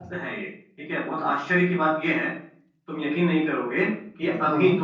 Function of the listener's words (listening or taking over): listening